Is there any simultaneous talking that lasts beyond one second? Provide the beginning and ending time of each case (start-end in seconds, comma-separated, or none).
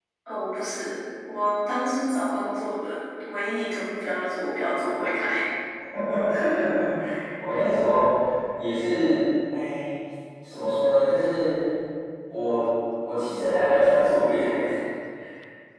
none